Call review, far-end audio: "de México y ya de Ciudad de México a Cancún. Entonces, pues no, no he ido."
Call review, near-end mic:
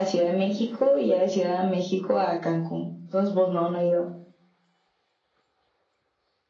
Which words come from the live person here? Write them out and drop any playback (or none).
none